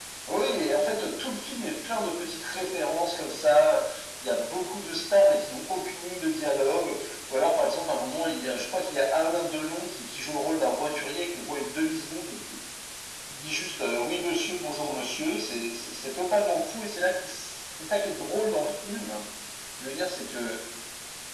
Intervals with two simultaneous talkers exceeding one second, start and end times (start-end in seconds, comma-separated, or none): none